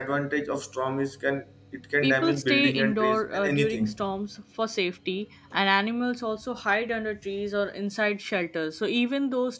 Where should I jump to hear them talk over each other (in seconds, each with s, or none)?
2.0 s